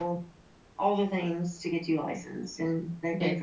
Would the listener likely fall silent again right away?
No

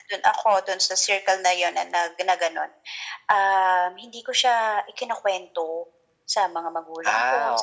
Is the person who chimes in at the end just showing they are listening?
Yes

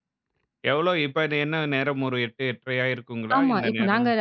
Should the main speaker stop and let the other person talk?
Yes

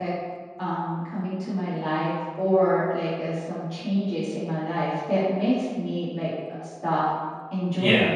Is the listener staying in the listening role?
Yes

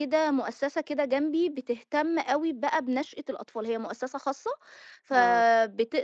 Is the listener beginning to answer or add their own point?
No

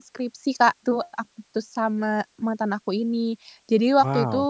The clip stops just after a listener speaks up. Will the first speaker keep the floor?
Yes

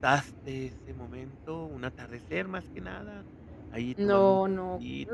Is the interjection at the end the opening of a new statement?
Yes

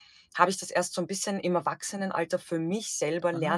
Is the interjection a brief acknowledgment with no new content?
No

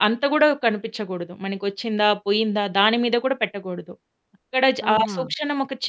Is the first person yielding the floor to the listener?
No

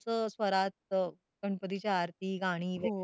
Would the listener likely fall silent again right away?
No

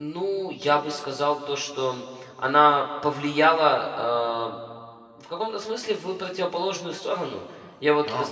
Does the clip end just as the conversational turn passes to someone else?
No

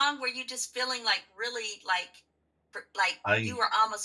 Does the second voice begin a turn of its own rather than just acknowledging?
No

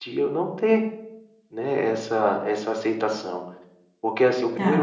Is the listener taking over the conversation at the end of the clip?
Yes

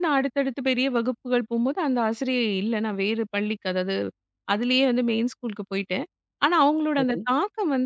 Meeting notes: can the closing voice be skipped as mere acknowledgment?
Yes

